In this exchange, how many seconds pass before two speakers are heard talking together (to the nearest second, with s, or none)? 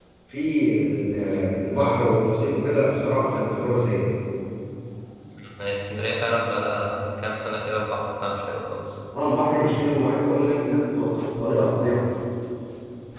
none